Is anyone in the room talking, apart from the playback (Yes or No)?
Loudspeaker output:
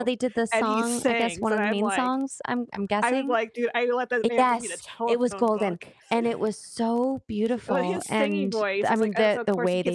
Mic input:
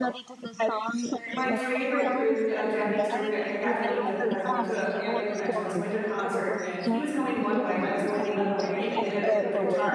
Yes